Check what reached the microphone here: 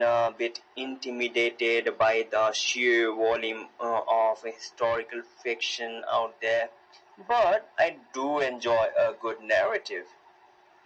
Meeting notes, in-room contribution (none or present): none